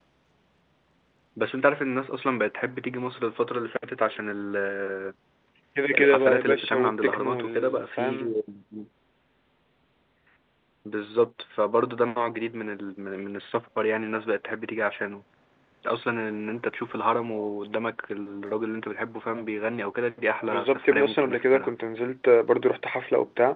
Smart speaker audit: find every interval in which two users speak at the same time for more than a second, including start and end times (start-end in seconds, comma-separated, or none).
6.0-8.2, 20.5-21.8